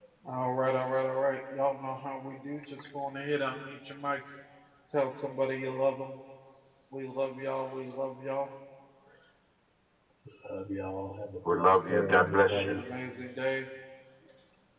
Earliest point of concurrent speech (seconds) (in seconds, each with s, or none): 11.4 s